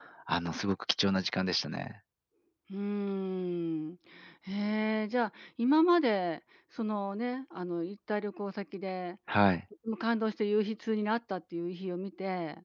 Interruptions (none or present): none